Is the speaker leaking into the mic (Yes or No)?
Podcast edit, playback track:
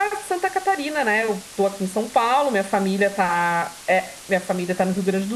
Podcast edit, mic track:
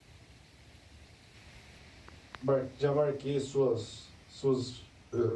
No